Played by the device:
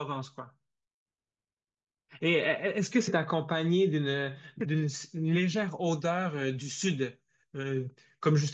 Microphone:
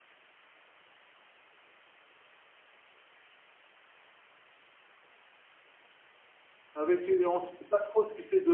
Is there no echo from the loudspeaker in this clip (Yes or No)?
Yes